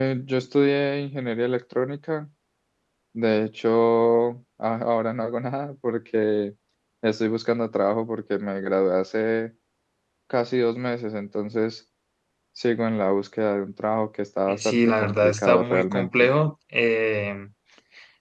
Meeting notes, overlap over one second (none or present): present